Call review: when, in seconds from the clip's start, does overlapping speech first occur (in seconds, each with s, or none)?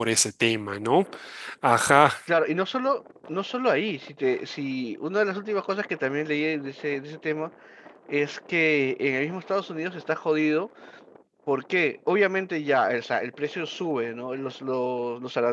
none